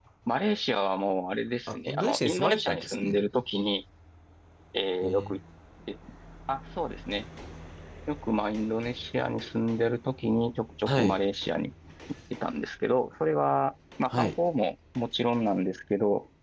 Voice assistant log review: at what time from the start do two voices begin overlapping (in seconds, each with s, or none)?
1.7 s